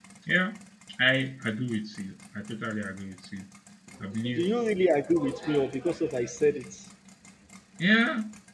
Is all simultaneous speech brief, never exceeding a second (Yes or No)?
Yes